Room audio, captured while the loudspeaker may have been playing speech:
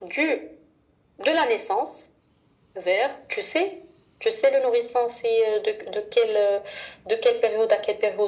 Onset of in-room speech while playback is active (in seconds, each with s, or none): none